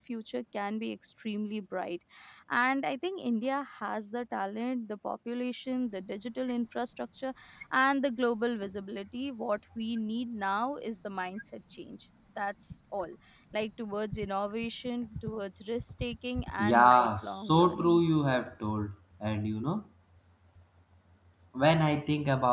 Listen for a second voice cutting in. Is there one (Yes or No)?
Yes